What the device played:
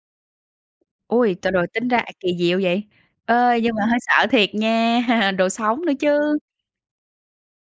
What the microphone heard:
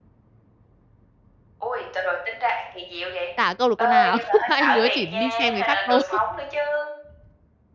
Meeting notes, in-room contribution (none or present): present